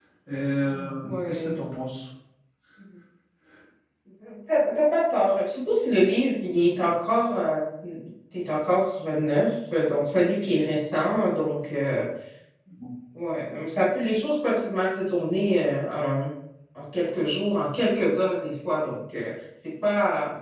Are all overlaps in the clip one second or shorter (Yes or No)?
Yes